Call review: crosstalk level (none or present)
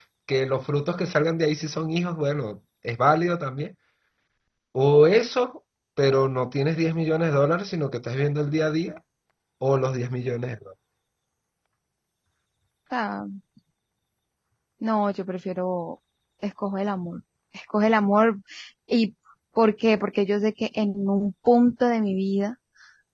none